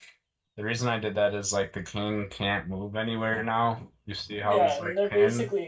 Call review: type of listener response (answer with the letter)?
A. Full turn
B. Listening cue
A